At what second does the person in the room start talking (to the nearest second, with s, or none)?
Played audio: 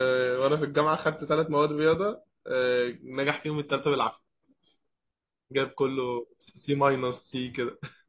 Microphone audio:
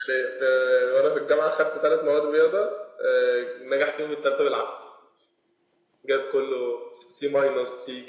none